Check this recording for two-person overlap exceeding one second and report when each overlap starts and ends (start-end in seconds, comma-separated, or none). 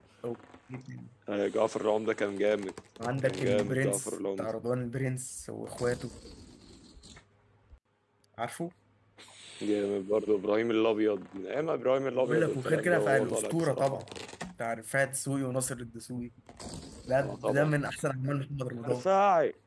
3.2-4.5, 12.2-14.1